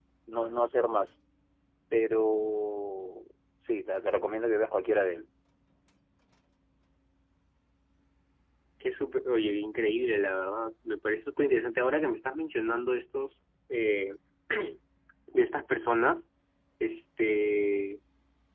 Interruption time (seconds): none

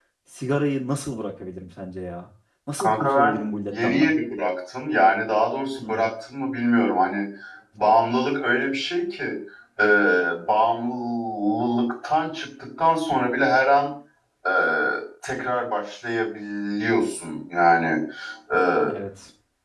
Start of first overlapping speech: 3 s

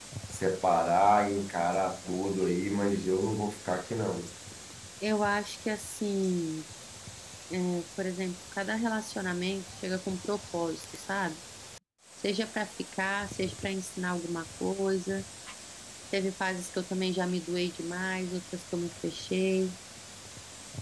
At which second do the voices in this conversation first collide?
none

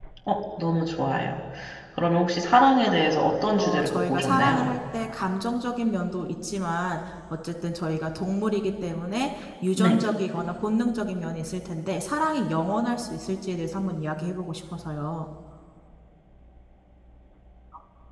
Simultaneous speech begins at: 4 s

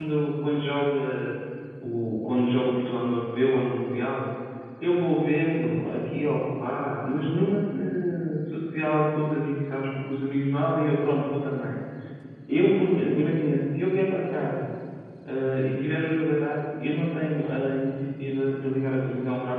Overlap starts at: none

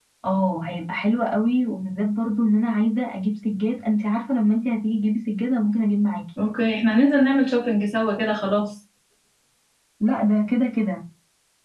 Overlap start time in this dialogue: none

